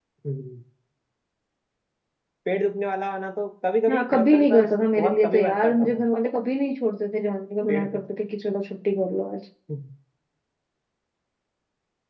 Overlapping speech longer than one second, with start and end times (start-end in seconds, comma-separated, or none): 3.9-6.0